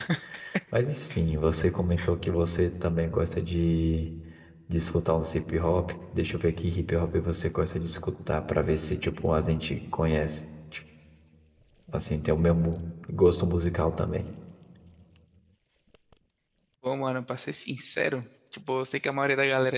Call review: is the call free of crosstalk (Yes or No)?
Yes